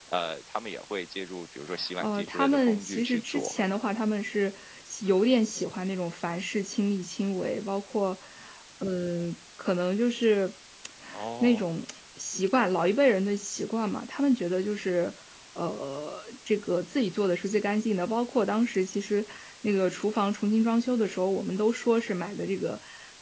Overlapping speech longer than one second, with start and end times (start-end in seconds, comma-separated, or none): 2.0-3.5